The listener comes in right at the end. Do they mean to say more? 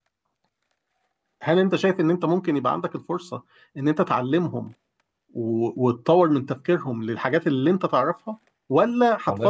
No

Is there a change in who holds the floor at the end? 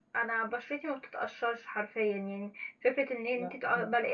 No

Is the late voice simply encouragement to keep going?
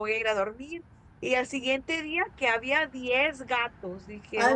Yes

